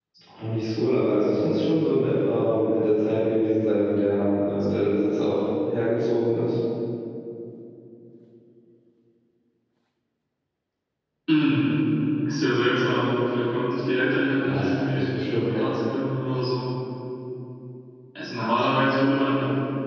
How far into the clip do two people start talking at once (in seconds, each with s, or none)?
14.4 s